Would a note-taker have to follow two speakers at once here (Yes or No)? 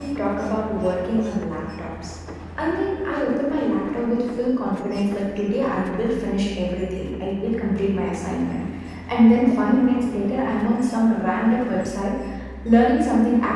No